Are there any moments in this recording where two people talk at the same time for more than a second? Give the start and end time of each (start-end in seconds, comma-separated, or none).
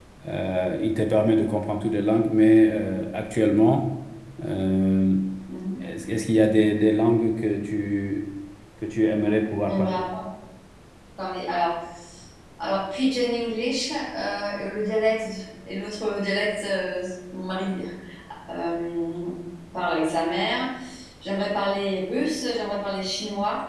none